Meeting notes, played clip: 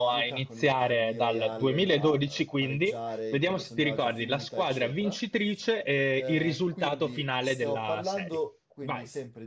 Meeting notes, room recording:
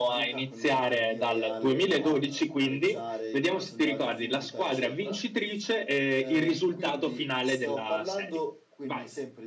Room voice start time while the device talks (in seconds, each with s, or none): none